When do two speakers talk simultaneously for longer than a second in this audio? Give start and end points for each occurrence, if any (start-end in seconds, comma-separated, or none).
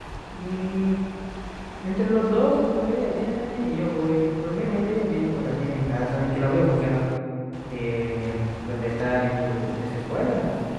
none